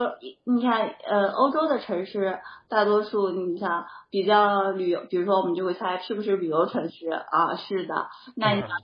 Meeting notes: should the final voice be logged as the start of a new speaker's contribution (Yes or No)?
No